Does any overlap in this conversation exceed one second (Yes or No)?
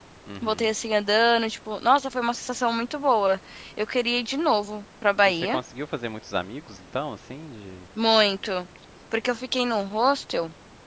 No